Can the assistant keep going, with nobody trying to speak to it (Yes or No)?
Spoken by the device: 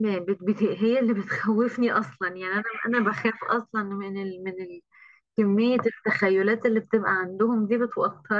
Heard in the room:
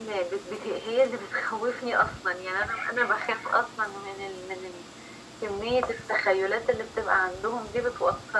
Yes